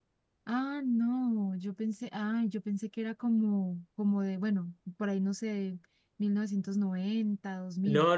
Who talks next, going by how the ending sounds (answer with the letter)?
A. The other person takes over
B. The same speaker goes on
A